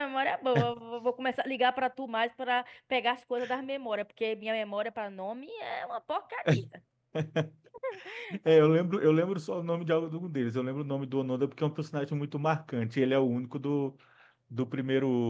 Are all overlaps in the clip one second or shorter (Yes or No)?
Yes